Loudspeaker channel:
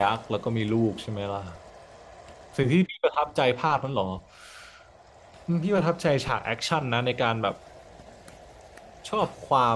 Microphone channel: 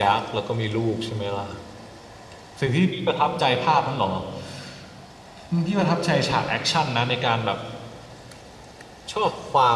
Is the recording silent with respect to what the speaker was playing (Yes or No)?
No